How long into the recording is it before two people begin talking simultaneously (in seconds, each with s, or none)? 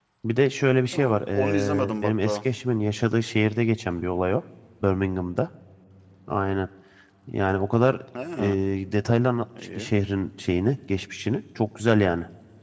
0.9 s